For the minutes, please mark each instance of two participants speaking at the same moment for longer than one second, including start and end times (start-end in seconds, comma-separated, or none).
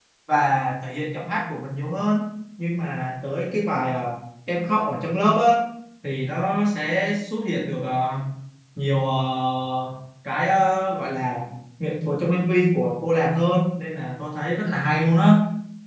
none